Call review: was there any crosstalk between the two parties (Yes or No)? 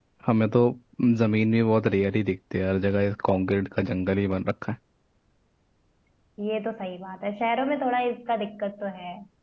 No